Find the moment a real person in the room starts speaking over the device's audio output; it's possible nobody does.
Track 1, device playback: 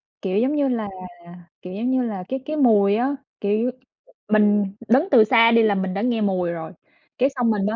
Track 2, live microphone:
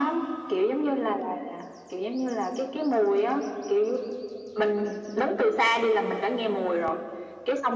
none

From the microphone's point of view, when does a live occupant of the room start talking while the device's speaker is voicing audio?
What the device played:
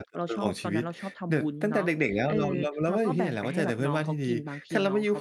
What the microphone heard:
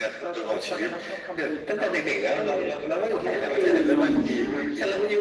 3.3 s

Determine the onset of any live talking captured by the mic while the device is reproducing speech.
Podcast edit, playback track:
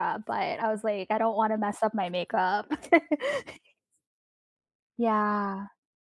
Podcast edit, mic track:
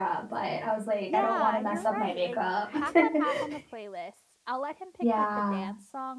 1.1 s

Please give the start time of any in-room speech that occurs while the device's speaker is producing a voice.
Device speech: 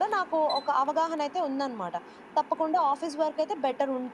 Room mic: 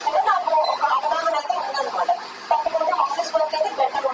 none

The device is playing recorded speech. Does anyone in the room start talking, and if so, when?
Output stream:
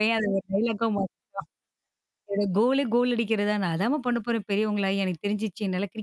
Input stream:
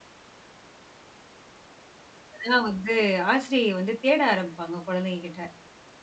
2.3 s

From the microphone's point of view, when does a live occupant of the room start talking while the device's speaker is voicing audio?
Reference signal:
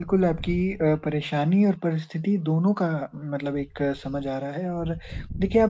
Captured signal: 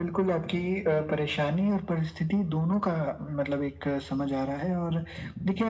none

